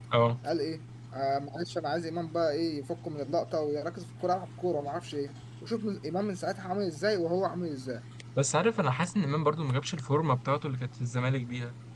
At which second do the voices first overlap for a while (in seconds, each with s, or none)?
none